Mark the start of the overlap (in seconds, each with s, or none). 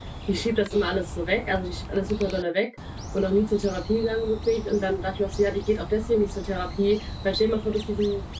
none